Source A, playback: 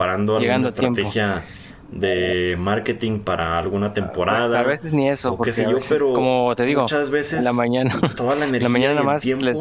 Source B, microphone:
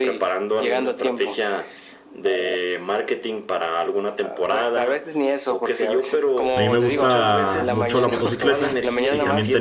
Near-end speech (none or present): present